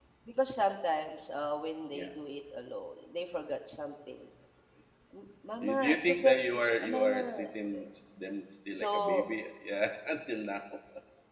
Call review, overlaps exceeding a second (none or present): present